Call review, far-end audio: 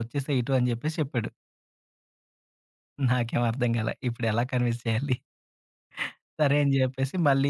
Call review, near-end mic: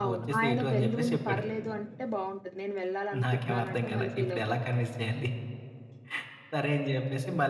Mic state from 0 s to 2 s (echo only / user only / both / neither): both